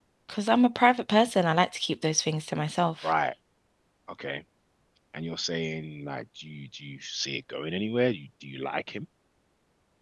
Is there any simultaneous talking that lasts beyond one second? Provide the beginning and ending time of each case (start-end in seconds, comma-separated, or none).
none